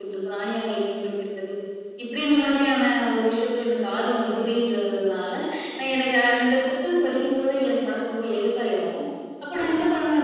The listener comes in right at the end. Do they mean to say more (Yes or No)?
No